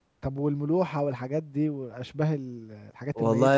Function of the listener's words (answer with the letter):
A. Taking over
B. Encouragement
A